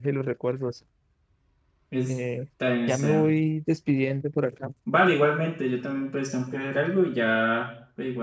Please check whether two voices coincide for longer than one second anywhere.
No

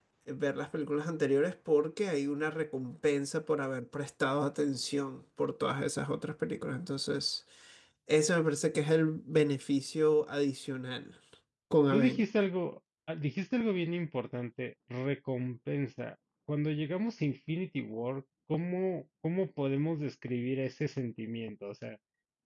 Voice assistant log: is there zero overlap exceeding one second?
Yes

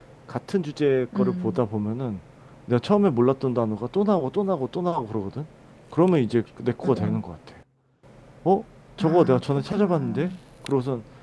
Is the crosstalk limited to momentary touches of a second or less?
No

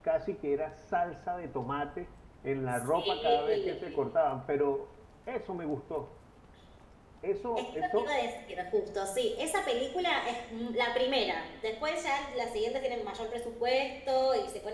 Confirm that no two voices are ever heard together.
No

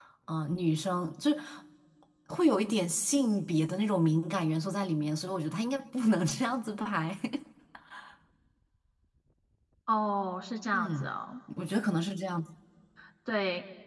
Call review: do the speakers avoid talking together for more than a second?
Yes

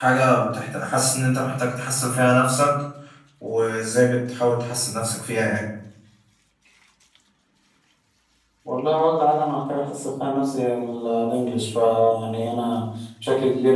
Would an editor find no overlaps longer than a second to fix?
Yes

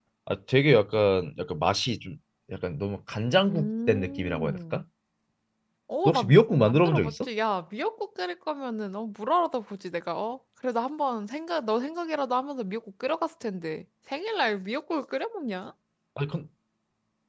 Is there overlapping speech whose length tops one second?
Yes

